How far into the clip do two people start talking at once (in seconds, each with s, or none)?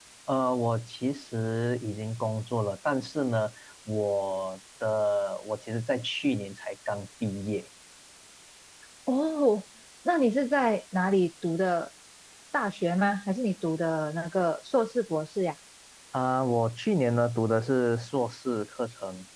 none